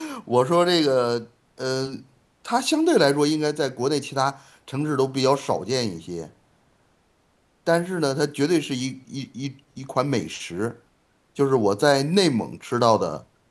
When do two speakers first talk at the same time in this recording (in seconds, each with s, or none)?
none